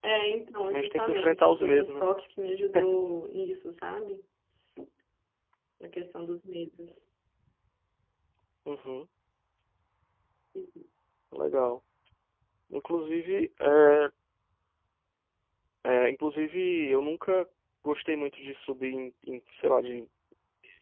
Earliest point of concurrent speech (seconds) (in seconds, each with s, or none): 0.7 s